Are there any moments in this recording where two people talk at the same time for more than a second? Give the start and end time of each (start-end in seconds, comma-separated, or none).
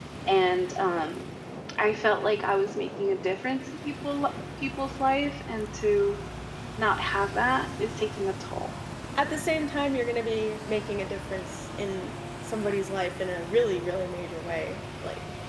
none